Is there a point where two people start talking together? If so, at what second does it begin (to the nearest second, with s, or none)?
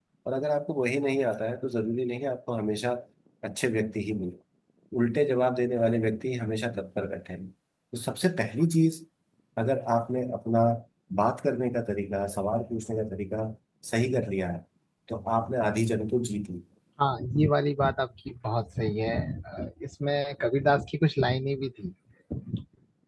none